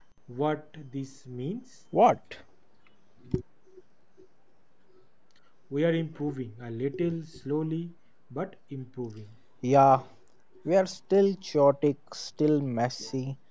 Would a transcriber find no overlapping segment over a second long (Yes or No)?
Yes